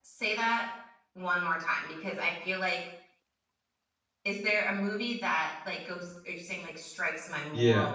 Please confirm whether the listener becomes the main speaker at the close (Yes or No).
Yes